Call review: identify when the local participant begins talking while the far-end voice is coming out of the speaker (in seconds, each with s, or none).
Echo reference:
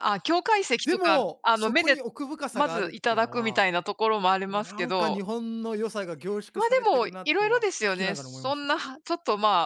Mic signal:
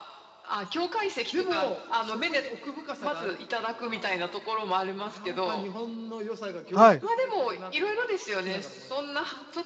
6.7 s